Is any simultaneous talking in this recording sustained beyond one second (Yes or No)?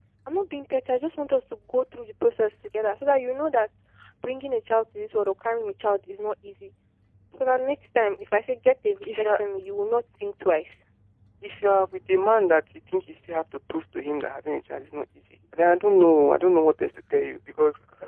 No